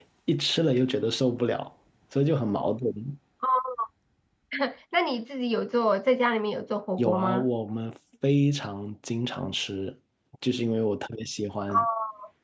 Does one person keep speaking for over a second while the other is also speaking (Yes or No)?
No